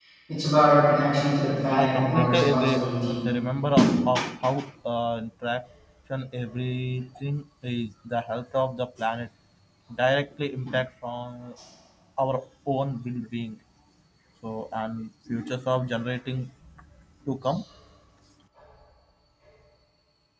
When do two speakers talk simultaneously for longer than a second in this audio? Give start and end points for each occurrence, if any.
1.8-3.2

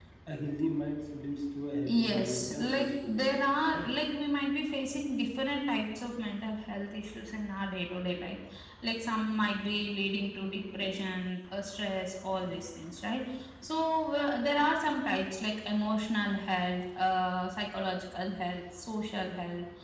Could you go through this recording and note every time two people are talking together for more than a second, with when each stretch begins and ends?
1.8-3.3

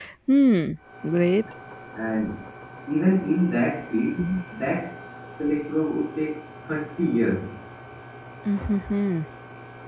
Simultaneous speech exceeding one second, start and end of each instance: none

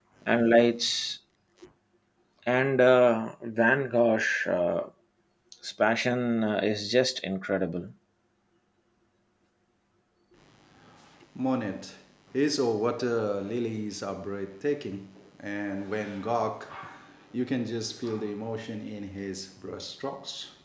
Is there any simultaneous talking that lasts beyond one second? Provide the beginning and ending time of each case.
none

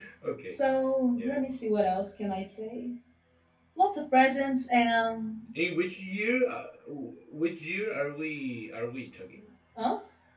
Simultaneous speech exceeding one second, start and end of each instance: none

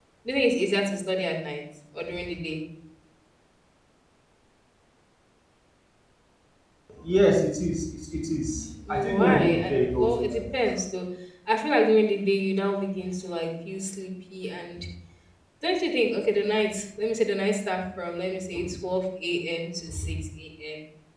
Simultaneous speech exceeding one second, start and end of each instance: 8.9-10.4

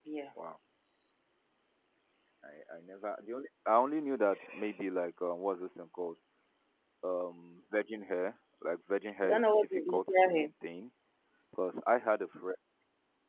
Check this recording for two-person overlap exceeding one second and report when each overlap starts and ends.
9.2-10.5

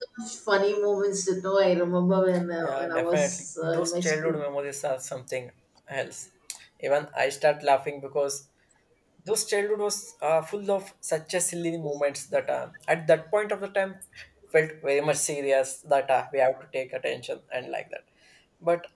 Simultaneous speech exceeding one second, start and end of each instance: 2.6-4.5

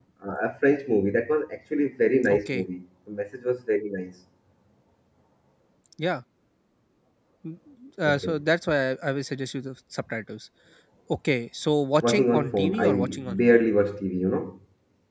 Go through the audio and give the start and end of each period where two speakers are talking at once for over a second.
12.0-13.7

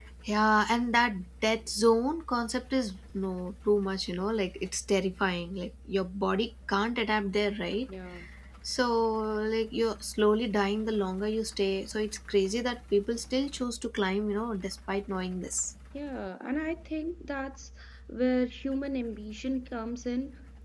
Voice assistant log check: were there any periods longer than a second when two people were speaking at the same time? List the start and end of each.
none

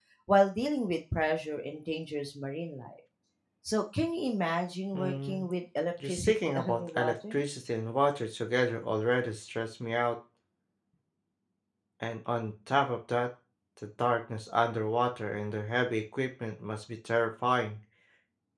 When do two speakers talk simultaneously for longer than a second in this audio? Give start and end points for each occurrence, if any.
6.0-7.3

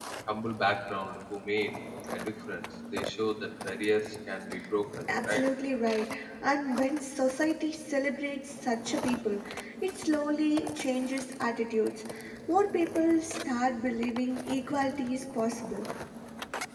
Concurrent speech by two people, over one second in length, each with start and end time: none

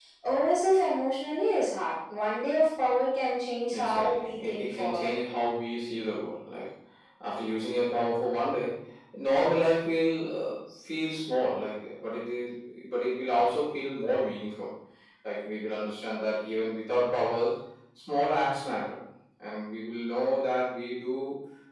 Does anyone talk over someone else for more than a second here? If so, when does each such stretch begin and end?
3.7-5.1

